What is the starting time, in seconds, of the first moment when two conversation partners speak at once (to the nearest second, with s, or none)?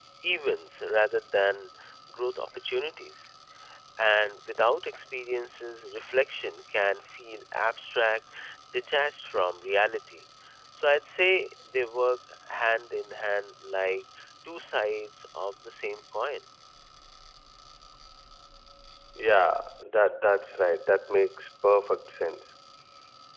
none